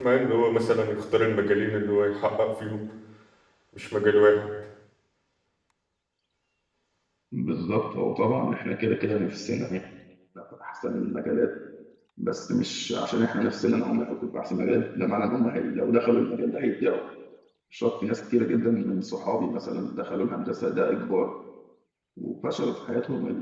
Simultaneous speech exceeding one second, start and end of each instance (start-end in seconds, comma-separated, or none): none